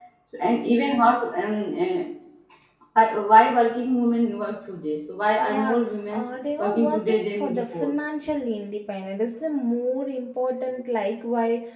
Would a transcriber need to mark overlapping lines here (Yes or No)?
Yes